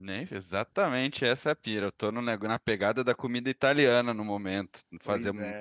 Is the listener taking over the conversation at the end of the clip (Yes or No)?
No